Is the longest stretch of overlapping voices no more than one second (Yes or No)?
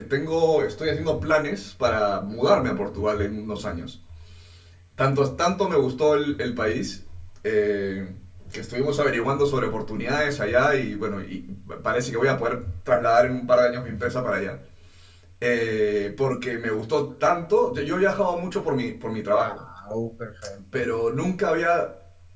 Yes